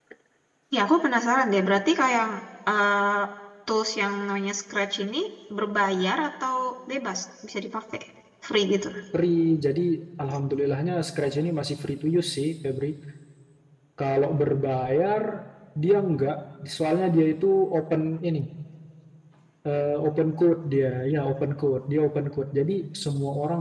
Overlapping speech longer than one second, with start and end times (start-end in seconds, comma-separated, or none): none